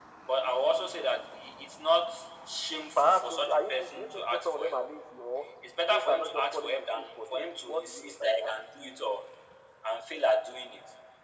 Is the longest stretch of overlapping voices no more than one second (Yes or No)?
No